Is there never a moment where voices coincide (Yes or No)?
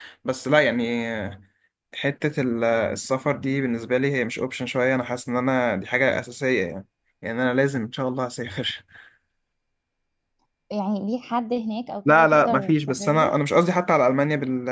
No